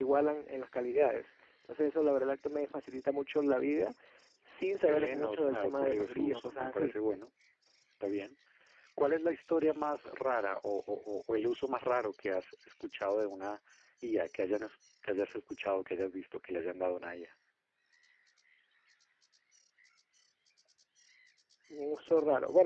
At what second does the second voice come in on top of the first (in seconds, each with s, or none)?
4.8 s